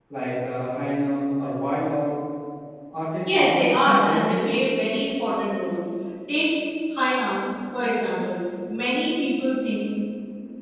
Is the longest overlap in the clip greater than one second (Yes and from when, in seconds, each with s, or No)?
Yes, from 3.3 s